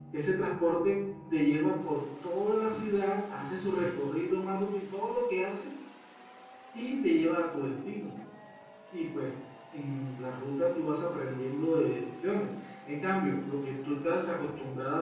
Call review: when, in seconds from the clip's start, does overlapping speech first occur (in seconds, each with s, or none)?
none